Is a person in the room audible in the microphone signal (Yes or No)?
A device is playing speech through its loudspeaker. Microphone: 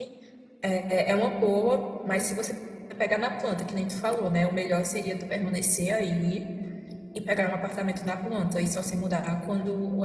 Yes